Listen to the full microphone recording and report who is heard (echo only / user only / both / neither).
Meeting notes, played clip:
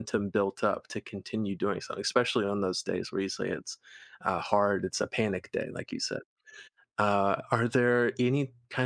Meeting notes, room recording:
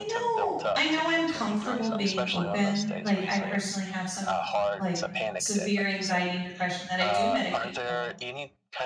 both